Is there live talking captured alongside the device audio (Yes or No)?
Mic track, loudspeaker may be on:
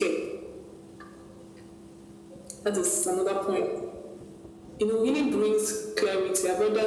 No